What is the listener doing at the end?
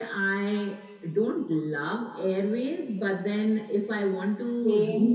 listening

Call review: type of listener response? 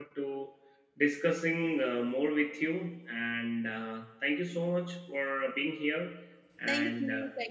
taking over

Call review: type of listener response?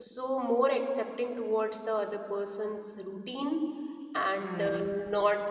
listening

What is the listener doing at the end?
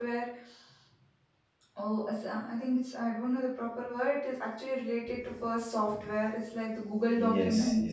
taking over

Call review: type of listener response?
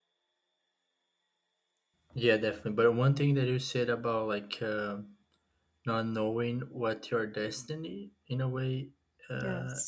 listening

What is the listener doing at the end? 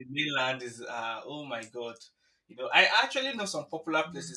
listening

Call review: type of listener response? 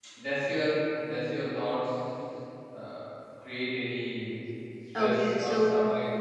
taking over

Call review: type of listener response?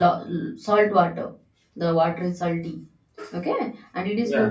listening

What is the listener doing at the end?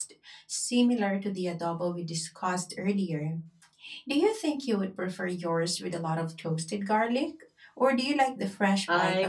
taking over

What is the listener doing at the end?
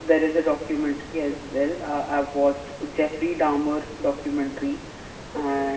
listening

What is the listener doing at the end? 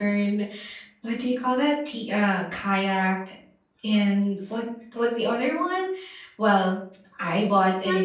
listening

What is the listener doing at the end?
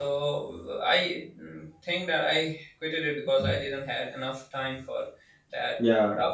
listening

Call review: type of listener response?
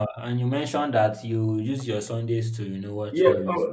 taking over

